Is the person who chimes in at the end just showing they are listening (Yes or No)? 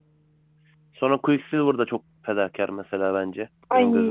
No